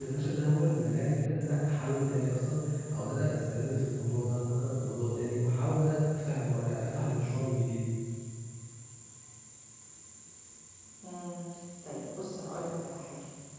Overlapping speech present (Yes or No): No